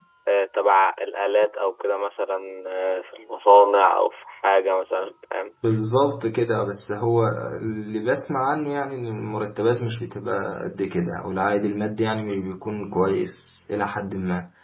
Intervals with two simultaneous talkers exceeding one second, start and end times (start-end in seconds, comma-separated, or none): none